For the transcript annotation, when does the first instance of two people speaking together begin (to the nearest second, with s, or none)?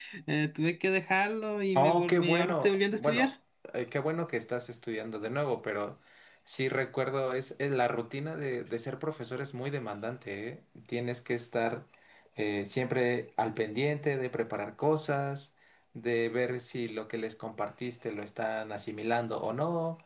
2 s